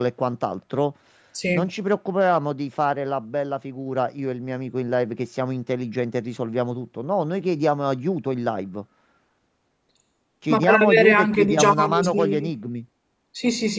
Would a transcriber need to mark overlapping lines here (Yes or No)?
Yes